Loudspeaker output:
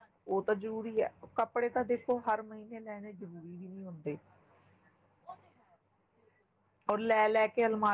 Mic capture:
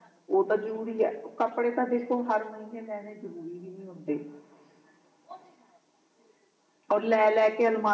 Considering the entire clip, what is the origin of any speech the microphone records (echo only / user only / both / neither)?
echo only